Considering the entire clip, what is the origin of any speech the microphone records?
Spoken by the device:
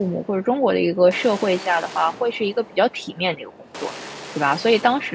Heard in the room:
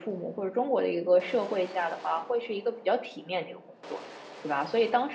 echo only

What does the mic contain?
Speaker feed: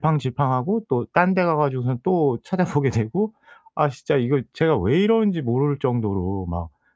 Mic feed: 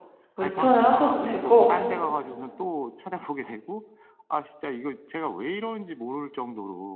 both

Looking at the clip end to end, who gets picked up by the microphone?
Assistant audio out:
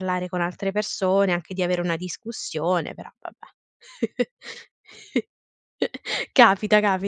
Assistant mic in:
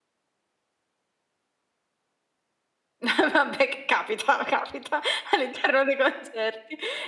user only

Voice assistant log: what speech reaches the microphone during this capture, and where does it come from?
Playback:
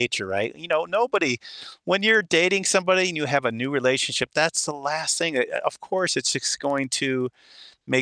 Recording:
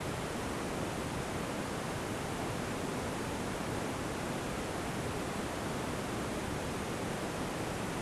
neither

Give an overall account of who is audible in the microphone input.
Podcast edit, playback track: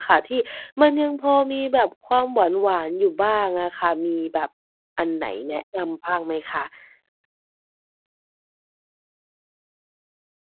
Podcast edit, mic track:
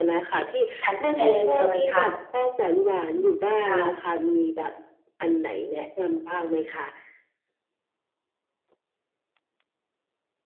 both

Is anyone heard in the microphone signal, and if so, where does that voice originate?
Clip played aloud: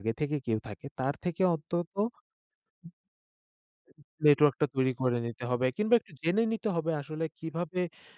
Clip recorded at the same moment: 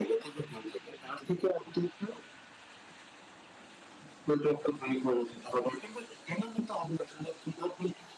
echo only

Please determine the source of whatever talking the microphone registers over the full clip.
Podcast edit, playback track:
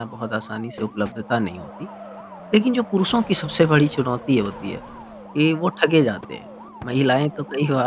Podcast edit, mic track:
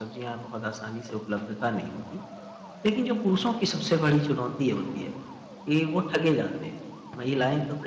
echo only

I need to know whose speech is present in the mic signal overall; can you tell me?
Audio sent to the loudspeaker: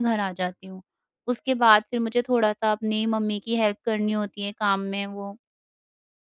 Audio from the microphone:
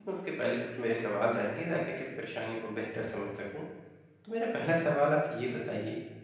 user only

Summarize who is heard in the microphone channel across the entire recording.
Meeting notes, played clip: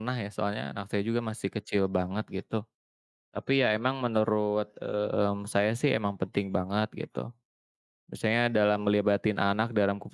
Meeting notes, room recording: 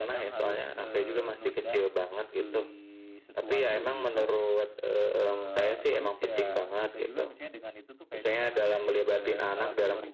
both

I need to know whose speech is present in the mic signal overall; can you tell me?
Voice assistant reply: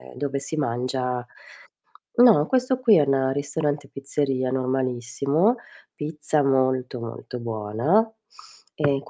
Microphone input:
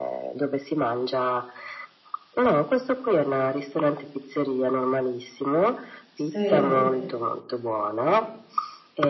both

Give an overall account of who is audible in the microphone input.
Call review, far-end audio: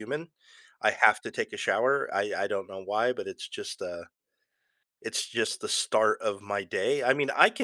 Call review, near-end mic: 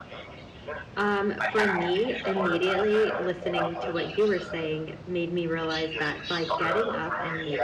both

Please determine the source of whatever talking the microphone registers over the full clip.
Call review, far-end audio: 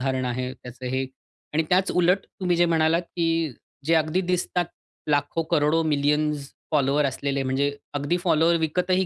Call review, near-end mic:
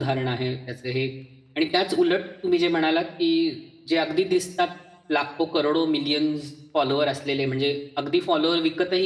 echo only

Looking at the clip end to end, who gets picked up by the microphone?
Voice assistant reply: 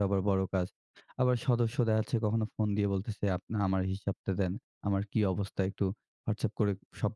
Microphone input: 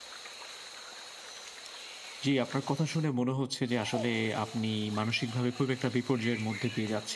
user only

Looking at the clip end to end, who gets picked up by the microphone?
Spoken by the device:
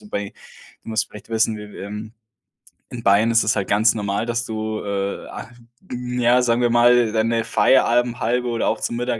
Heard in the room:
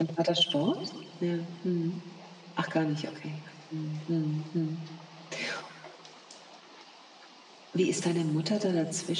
user only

